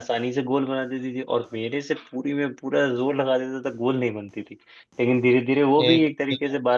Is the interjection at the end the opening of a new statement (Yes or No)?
No